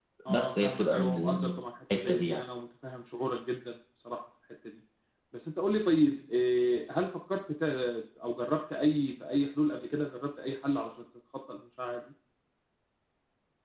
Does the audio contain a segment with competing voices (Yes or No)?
Yes